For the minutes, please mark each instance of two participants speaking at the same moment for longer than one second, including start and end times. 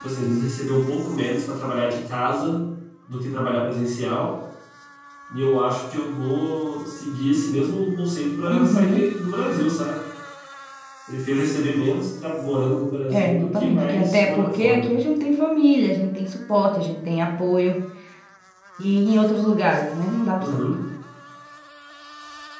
13.1-14.9

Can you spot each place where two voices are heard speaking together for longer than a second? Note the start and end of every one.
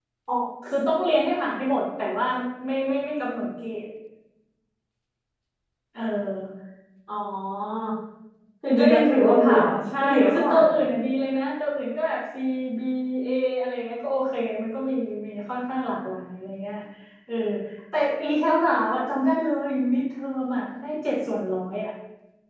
8.8-10.7

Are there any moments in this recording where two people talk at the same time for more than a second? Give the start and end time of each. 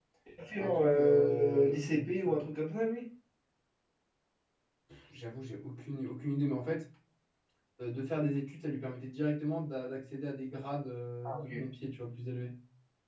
0.6-2.4

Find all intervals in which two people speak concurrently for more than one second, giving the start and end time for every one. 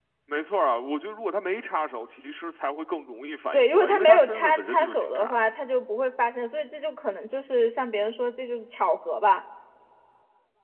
3.5-5.3

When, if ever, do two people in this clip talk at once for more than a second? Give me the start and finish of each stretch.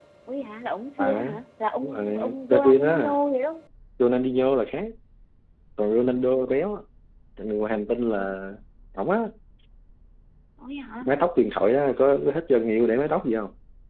1.8-3.1

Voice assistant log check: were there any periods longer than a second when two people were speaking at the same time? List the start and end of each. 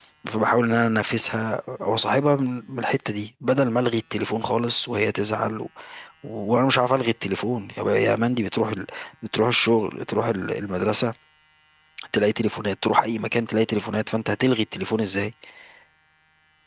none

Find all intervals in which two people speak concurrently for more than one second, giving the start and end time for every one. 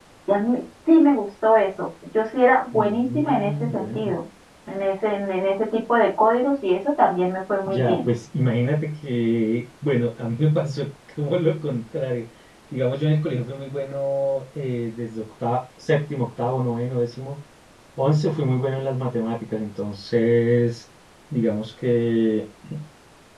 2.7-4.1

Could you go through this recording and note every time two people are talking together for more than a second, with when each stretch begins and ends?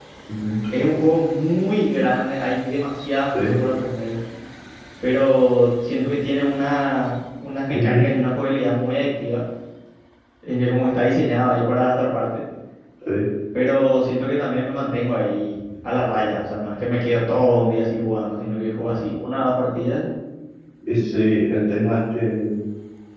none

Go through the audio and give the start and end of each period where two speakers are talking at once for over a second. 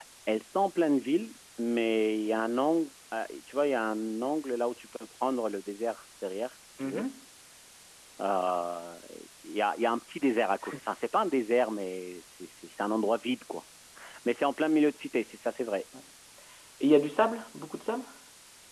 none

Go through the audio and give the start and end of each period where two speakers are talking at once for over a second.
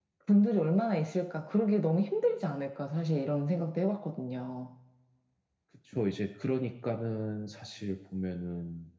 none

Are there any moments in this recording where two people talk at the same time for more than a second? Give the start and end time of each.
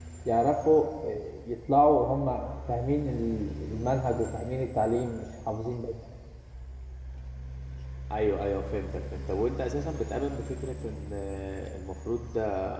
none

